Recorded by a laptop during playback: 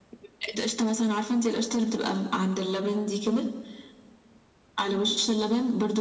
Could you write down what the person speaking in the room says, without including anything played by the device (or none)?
none